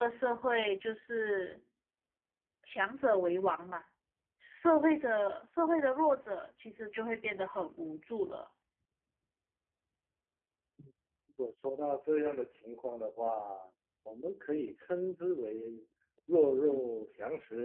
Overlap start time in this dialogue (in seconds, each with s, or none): none